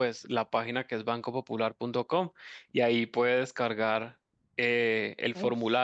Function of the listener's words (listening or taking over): listening